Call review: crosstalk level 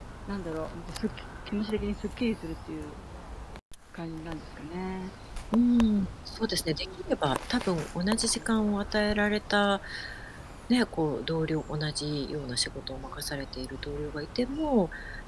none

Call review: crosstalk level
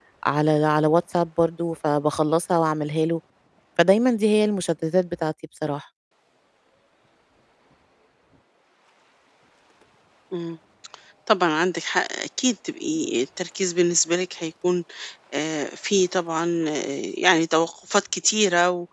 none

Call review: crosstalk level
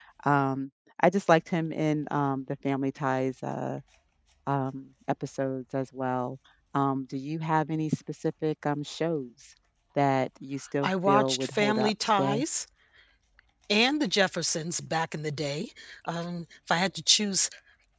present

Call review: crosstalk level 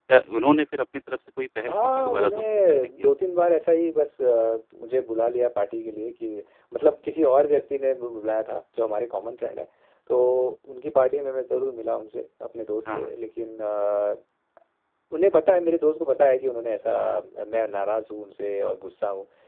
present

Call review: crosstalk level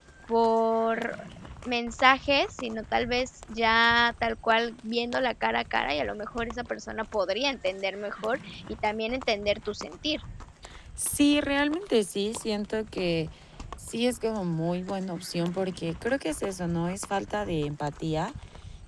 none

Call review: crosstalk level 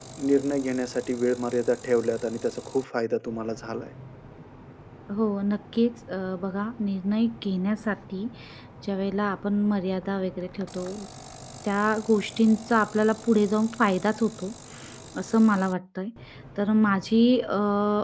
none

